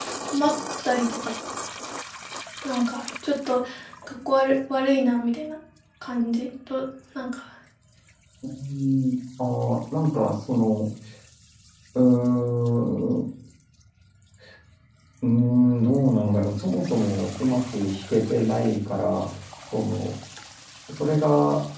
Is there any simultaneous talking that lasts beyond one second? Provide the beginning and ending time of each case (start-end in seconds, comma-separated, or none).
none